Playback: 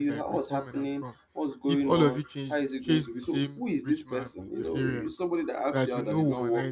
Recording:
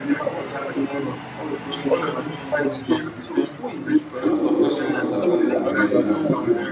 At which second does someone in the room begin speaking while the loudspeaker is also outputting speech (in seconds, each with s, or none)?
4.2 s